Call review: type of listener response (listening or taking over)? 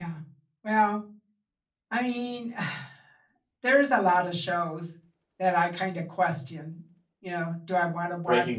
listening